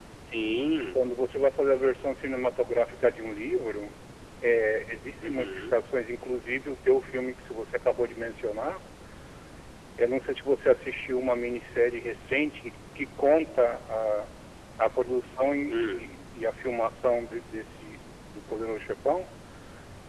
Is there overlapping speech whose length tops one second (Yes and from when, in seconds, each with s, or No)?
No